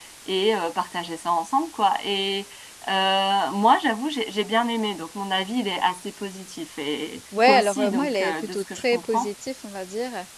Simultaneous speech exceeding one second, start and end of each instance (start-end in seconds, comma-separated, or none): 7.5-9.3